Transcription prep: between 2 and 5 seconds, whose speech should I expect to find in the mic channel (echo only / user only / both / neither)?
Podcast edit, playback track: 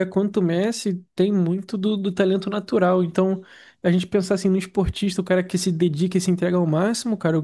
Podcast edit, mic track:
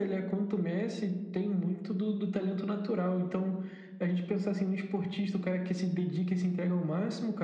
echo only